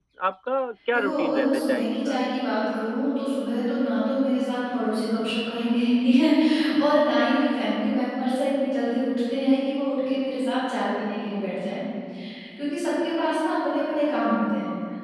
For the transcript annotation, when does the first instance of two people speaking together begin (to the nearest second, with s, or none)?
1 s